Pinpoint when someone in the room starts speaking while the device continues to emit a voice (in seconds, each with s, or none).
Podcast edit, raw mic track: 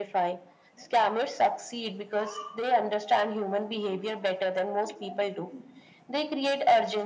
none